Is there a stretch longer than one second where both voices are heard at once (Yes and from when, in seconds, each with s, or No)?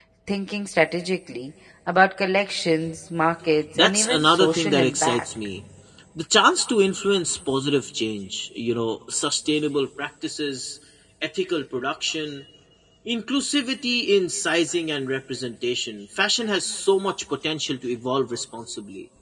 Yes, from 3.8 s